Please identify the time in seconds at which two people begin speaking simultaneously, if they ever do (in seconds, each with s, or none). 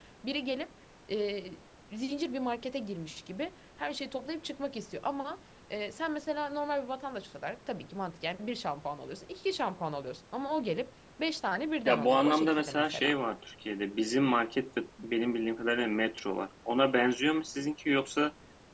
11.8 s